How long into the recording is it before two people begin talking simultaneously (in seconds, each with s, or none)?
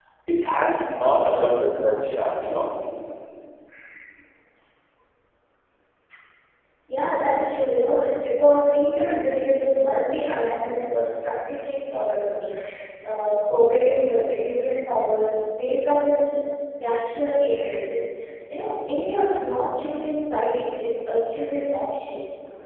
none